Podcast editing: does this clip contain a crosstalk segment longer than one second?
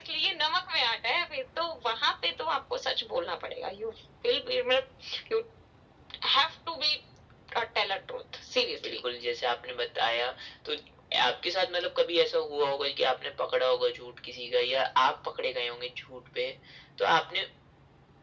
No

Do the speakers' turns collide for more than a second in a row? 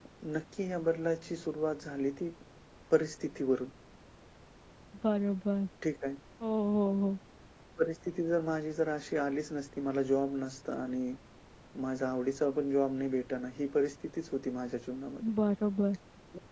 No

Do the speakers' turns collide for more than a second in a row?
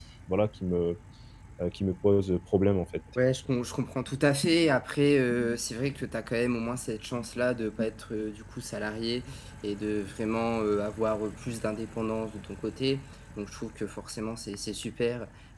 No

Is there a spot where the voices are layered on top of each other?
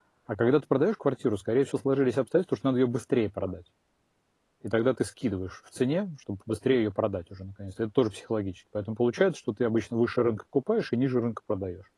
No

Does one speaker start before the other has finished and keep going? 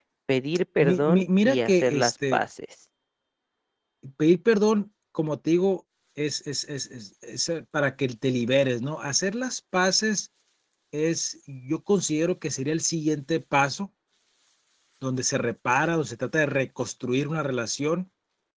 Yes, from 0.8 s

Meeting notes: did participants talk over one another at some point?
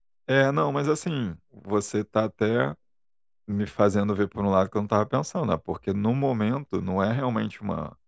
No

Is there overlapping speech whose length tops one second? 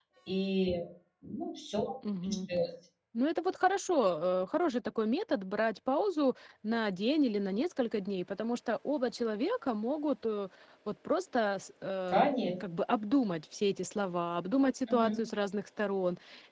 No

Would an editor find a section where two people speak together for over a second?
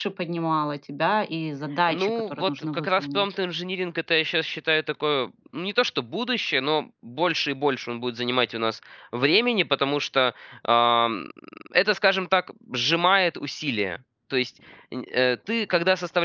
Yes, from 1.9 s

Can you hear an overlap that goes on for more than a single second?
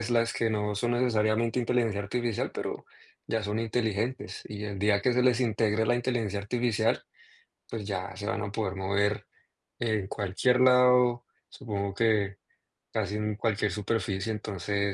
No

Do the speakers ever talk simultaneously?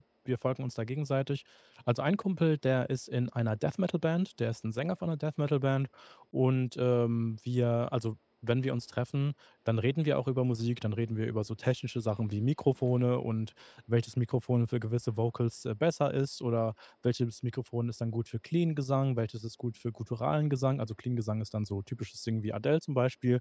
No

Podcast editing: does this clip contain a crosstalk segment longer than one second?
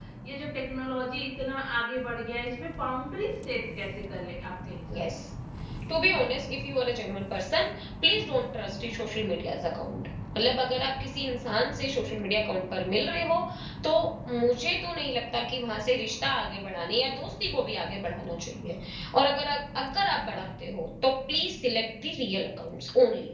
No

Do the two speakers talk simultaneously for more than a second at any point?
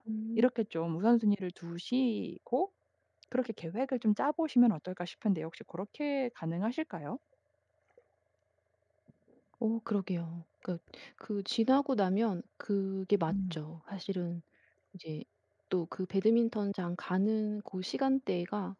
No

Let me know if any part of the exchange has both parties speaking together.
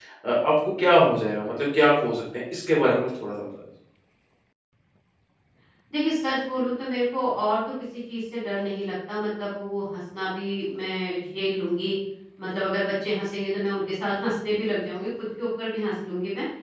No

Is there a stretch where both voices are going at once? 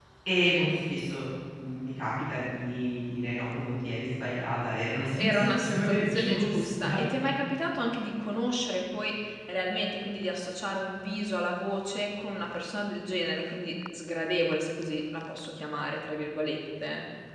Yes, from 5.2 s

